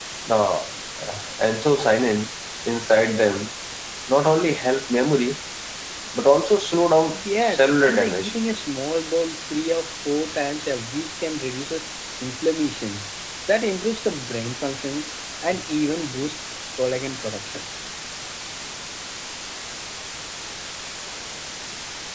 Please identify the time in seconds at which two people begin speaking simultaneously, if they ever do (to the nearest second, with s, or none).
7 s